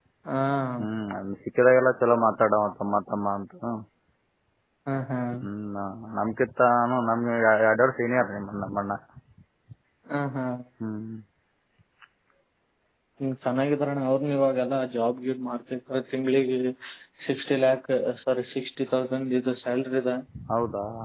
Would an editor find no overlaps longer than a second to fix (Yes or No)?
Yes